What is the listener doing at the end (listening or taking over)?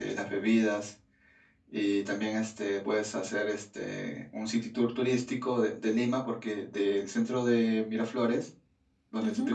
listening